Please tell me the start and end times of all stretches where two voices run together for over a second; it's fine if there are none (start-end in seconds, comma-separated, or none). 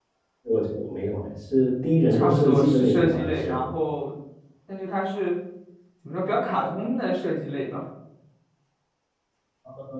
2.1-3.6